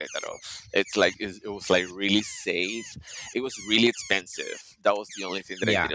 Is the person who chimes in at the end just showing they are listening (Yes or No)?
Yes